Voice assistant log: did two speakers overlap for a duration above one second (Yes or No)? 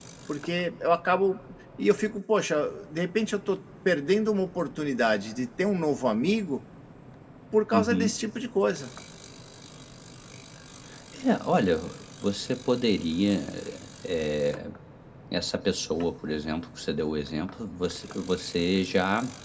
No